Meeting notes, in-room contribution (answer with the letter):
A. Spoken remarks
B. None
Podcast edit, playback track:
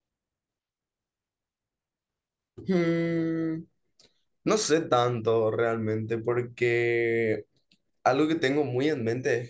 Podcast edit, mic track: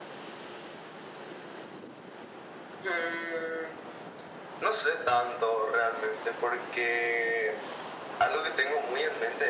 B